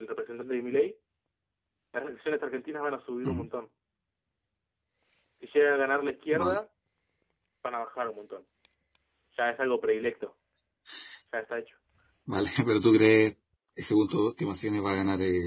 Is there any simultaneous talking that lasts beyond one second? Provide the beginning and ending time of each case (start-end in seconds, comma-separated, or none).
none